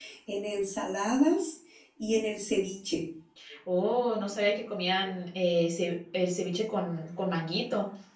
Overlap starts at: none

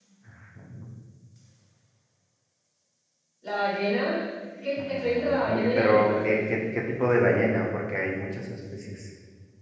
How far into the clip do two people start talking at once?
4.8 s

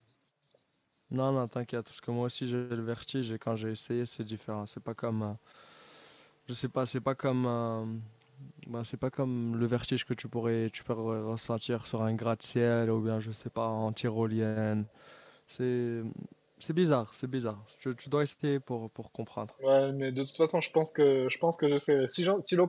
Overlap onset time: none

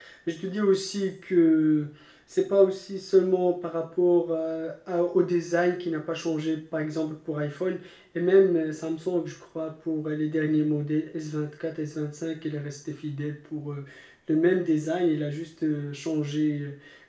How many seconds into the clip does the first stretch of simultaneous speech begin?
none

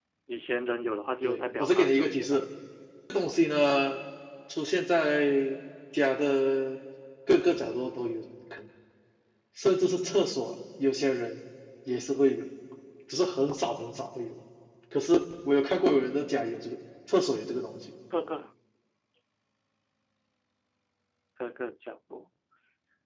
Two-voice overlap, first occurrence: 1.2 s

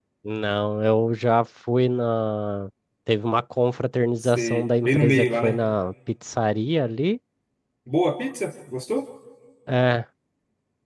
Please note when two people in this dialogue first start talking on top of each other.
4.2 s

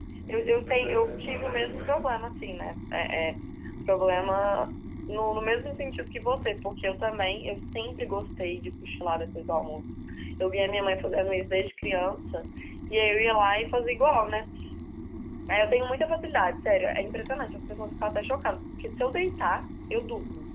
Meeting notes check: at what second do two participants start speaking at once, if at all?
0.6 s

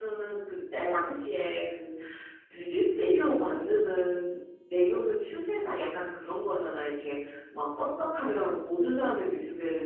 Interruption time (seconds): none

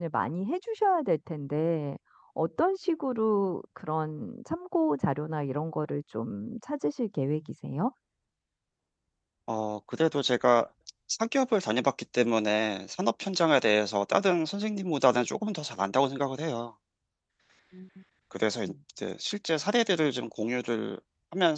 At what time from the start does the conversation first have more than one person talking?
none

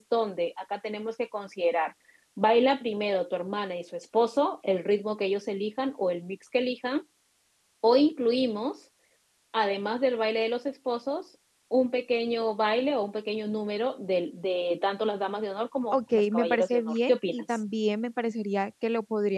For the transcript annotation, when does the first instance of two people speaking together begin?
15.9 s

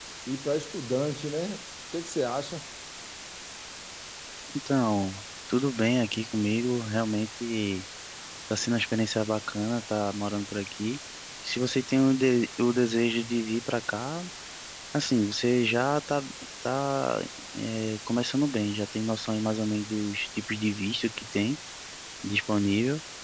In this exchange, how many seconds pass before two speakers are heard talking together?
none

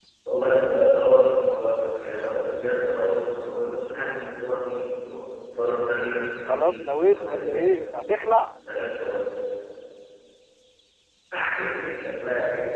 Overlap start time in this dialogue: 6.5 s

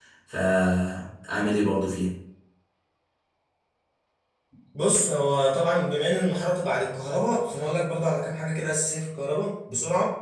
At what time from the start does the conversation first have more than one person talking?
none

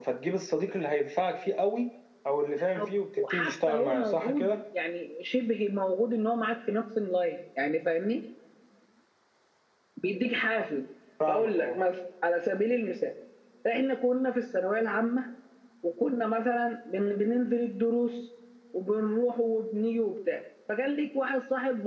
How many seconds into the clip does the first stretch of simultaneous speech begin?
3.3 s

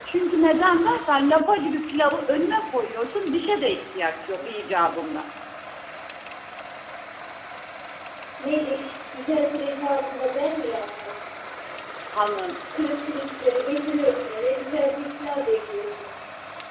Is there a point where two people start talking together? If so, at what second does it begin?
none

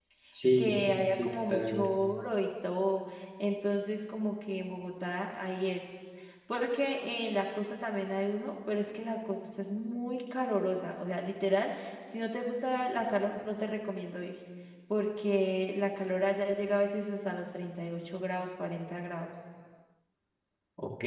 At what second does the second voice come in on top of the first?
0.6 s

